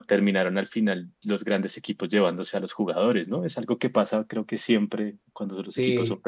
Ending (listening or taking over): taking over